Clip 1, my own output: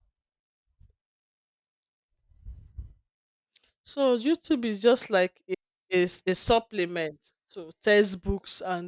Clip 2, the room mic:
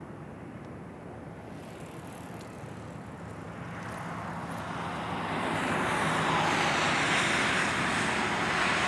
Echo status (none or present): none